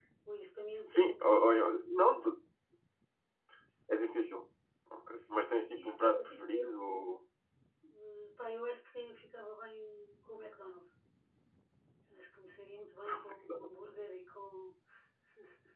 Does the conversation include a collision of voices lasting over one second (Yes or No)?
Yes